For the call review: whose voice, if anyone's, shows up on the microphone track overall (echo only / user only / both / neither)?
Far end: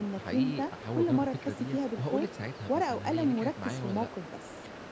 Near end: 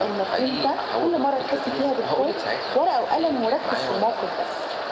echo only